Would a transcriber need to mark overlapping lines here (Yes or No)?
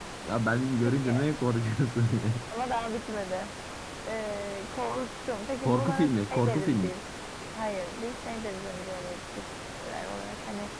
Yes